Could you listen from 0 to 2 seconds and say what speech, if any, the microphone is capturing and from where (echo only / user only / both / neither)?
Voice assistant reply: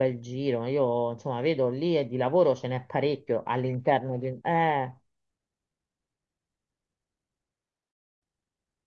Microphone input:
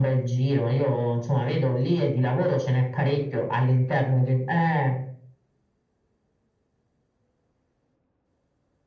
echo only